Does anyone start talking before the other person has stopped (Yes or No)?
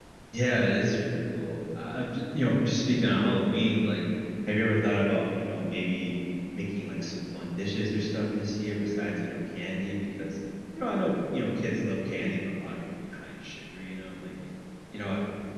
No